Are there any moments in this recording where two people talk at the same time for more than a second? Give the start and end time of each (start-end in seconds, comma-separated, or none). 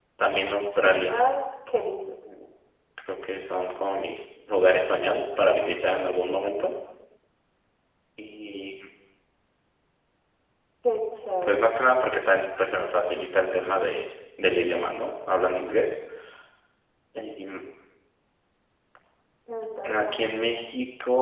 none